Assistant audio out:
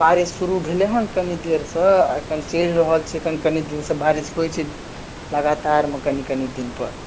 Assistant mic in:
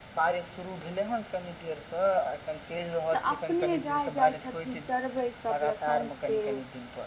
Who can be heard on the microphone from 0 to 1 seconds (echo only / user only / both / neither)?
echo only